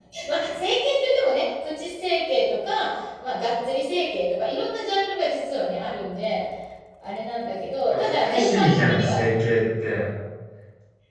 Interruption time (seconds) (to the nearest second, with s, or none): 8 s